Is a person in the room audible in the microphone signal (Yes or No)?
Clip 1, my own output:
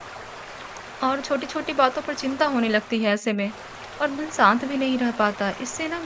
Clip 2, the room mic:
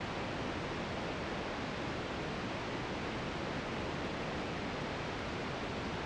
No